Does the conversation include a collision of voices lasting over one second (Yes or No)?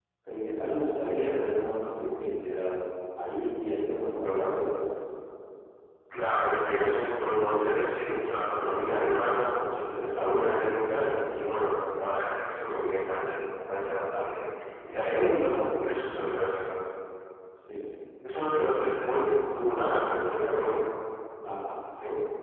No